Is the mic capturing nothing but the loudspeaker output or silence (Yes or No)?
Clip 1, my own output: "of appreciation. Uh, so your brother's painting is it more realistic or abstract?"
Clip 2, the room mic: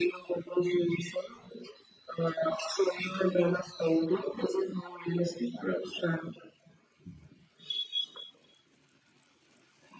Yes